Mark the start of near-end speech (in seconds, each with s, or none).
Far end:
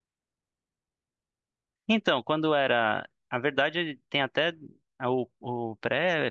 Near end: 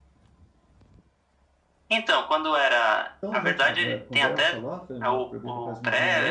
3.2 s